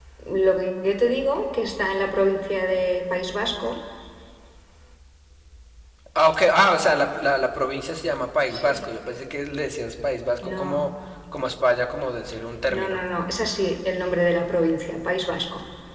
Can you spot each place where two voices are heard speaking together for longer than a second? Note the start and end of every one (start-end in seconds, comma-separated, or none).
none